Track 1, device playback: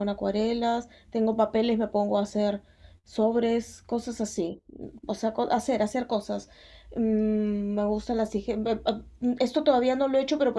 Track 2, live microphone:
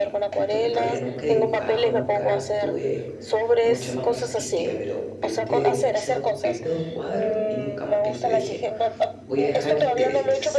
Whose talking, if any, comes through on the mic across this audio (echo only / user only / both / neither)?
both